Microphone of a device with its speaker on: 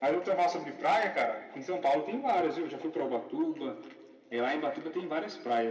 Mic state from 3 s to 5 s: echo only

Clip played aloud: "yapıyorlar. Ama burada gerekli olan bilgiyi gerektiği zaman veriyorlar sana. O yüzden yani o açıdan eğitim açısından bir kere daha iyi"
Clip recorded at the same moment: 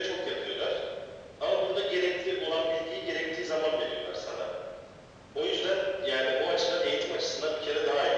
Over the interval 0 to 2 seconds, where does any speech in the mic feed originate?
echo only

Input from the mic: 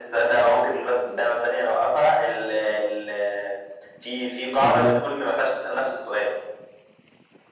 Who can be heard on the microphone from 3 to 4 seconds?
echo only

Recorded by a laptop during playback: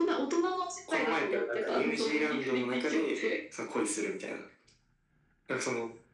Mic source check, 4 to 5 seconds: echo only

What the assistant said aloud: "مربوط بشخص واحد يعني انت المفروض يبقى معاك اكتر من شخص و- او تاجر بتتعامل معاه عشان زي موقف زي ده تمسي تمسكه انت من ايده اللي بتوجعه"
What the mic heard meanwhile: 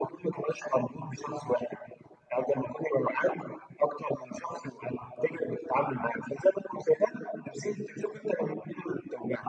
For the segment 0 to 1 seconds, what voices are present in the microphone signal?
echo only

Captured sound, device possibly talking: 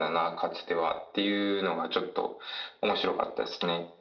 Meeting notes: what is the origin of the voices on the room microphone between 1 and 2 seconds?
echo only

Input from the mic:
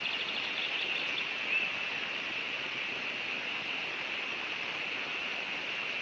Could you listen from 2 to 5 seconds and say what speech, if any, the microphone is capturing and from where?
neither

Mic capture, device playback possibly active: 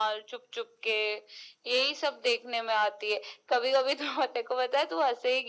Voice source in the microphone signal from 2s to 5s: echo only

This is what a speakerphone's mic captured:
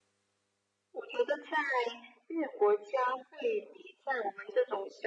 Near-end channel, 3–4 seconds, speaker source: echo only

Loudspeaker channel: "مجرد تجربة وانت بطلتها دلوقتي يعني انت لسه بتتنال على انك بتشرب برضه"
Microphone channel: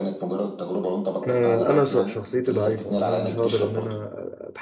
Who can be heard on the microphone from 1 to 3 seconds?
both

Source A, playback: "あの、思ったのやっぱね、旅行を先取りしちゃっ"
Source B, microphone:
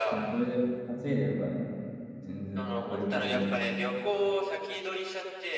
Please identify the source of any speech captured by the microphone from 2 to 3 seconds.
both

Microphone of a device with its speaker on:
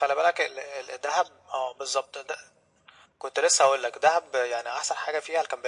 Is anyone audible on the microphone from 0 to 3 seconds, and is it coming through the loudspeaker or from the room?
echo only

